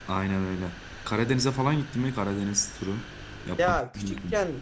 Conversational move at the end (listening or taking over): taking over